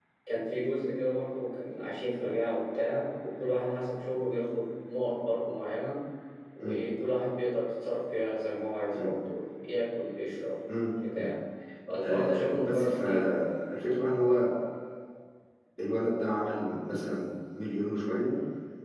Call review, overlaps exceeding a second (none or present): present